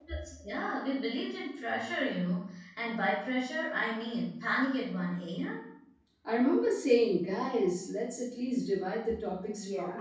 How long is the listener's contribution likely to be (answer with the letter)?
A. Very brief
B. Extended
B